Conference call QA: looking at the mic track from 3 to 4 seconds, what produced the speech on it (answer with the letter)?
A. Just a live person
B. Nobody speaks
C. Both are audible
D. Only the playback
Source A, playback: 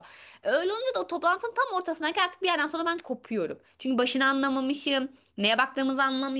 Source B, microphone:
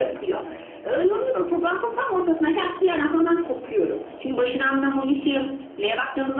D